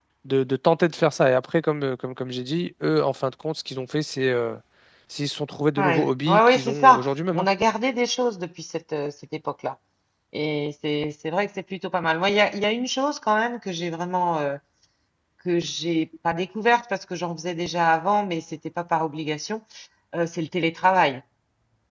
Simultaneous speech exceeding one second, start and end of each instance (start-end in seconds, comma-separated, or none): 5.8-7.5